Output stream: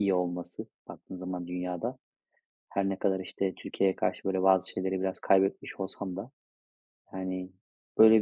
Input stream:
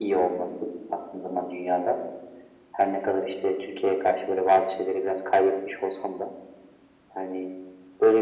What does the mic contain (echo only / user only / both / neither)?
echo only